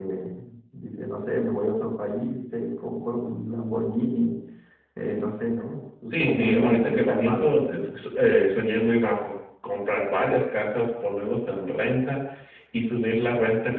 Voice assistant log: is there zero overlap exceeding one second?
No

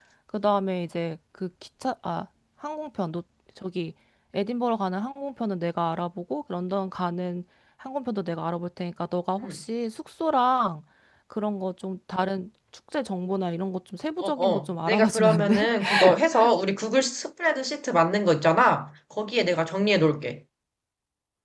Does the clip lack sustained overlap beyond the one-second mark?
No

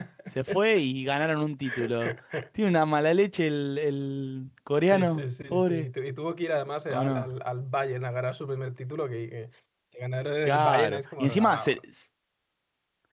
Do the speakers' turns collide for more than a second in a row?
Yes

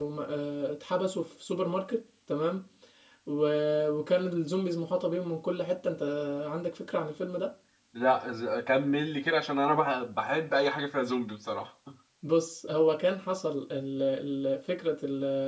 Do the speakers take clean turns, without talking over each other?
Yes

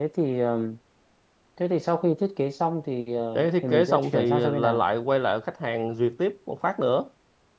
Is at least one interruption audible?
Yes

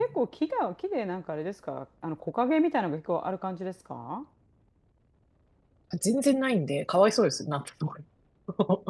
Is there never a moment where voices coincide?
Yes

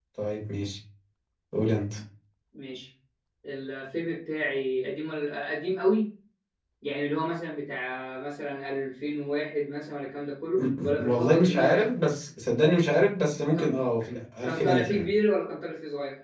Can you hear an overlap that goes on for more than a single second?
Yes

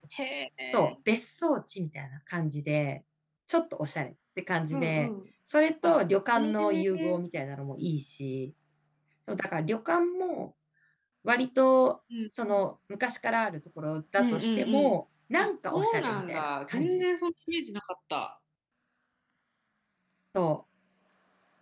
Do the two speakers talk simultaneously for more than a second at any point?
Yes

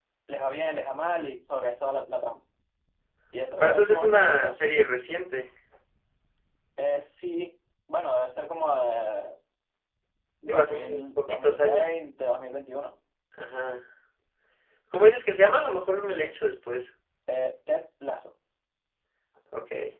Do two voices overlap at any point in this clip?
Yes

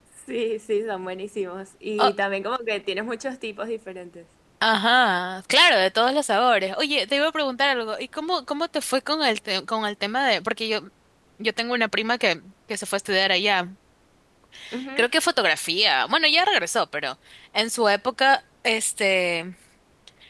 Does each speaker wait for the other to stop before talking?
Yes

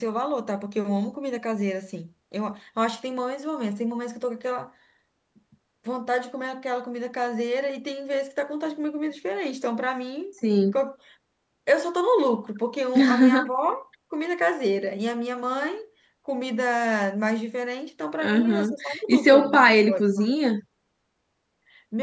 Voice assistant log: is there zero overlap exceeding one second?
No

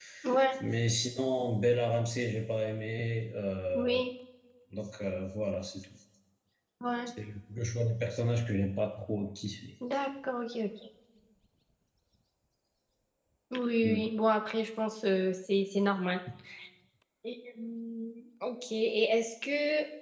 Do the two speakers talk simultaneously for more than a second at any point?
No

